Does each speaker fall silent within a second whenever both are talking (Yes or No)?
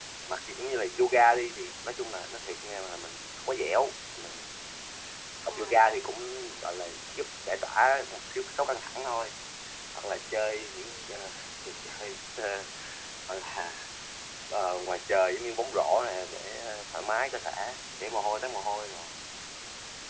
Yes